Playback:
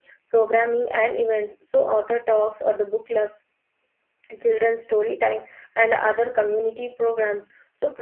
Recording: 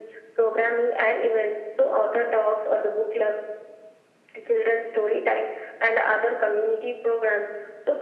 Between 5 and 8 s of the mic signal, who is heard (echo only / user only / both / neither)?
echo only